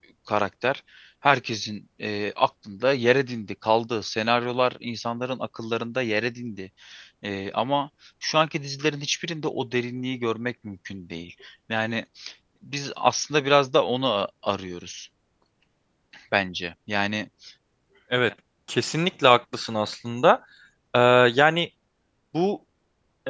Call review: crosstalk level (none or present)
none